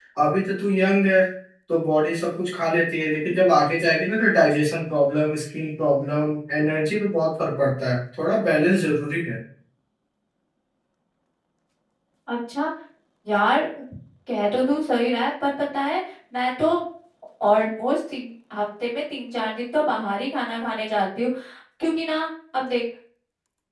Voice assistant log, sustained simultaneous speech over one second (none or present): none